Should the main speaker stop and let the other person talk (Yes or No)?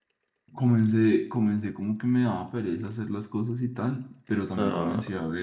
No